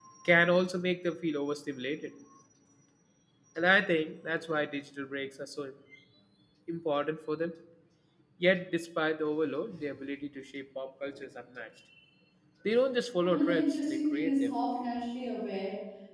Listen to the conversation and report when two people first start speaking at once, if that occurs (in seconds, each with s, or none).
13.2 s